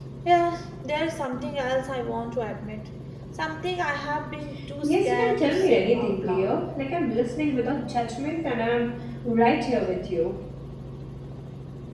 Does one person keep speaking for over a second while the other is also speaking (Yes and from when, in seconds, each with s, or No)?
Yes, from 4.8 s